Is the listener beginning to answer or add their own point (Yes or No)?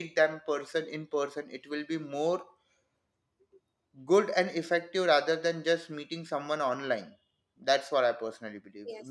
Yes